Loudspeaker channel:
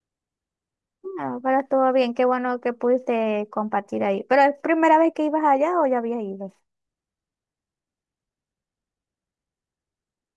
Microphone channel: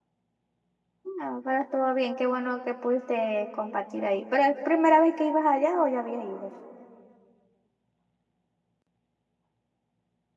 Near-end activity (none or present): none